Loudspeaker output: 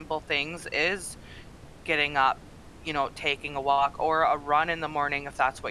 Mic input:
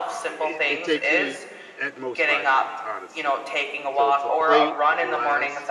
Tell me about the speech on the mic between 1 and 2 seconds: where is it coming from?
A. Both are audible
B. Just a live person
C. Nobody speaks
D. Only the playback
A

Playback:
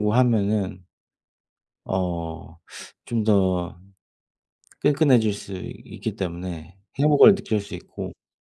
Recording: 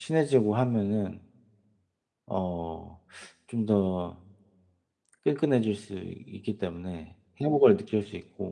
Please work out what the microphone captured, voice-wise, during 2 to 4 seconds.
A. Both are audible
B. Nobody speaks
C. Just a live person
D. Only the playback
D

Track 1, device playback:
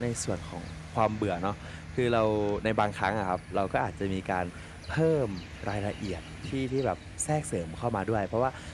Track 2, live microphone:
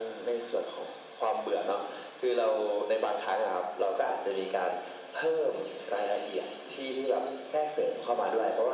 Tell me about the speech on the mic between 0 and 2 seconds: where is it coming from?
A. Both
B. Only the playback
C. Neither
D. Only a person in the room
B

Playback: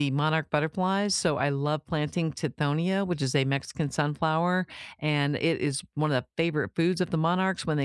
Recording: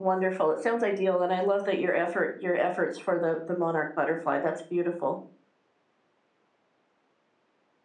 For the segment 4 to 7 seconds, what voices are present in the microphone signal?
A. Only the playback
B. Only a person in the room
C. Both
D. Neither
B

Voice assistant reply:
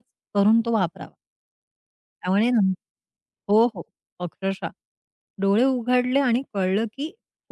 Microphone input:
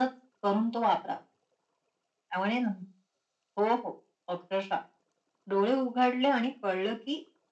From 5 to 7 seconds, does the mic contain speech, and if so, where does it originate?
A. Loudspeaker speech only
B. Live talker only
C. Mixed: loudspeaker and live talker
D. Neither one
A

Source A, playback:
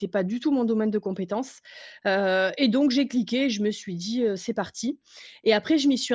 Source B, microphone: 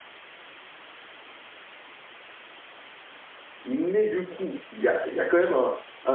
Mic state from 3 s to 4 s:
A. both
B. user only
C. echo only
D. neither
B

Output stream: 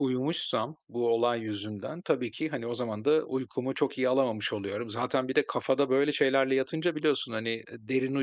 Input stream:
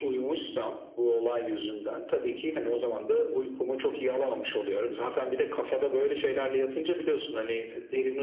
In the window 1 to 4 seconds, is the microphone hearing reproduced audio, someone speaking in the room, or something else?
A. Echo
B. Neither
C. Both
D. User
A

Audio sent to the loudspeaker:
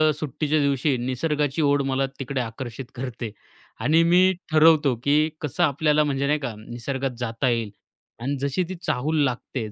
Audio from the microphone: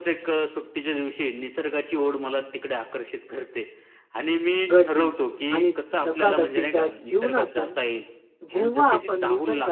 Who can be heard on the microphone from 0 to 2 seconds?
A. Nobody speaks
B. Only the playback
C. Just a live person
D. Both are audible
B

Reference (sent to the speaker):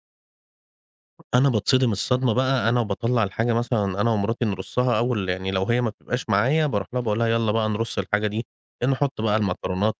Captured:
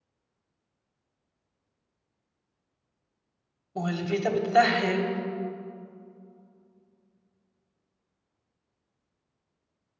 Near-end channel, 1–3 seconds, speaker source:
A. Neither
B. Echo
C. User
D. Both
A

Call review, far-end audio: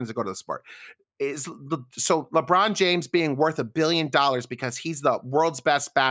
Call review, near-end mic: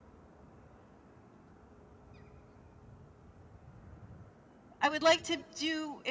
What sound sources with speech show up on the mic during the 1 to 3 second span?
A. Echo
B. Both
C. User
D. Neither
D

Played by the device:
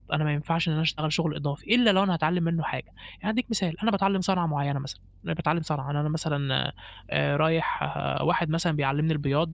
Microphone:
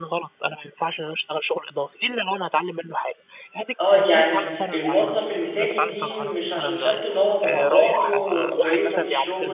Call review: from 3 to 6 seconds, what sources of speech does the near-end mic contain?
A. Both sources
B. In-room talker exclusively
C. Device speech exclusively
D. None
A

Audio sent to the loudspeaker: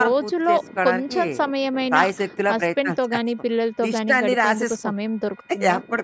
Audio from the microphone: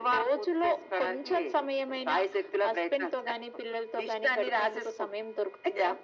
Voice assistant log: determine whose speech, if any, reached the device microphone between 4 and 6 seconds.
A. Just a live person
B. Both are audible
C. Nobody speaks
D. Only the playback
D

